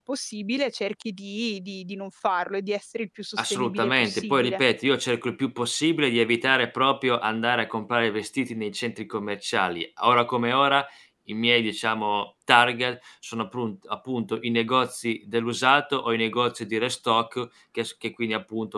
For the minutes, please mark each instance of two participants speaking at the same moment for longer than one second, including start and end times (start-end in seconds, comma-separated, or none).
3.4-4.6